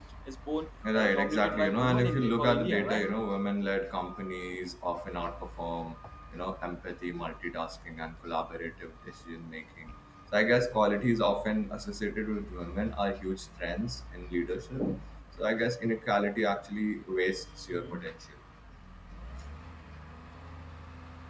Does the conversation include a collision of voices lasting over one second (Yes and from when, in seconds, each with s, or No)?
Yes, from 0.9 s